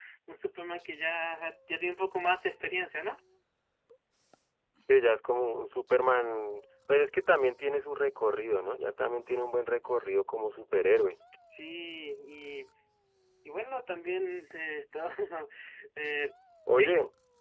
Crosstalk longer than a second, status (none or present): none